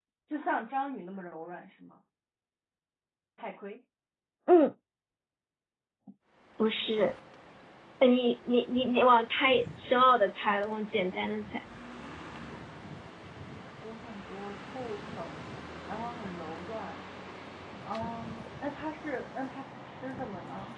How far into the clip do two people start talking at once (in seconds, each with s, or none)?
none